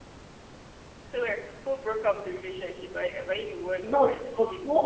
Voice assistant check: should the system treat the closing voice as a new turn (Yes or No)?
Yes